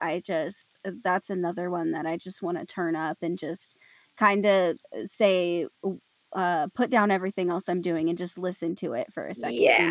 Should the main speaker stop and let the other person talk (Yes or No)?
Yes